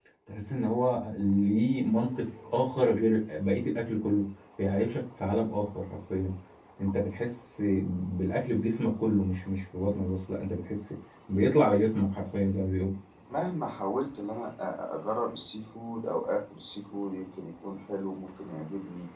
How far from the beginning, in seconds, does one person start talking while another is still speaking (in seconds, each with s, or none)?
none